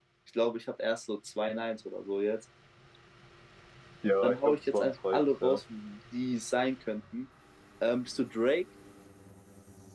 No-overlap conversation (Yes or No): No